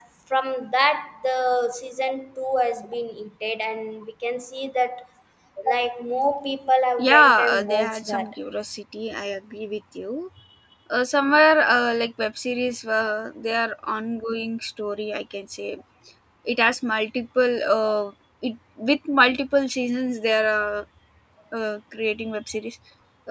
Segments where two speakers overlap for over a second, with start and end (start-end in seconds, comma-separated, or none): 7.0-8.3